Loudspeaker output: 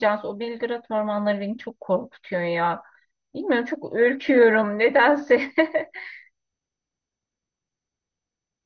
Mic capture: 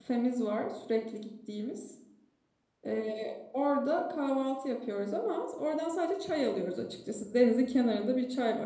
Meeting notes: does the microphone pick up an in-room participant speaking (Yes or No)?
Yes